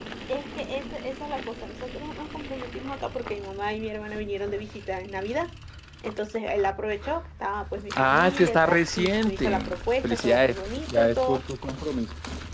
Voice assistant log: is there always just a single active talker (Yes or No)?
No